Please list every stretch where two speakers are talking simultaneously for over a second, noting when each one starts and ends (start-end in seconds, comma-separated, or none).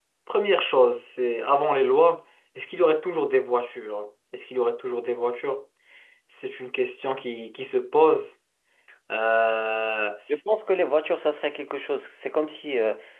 none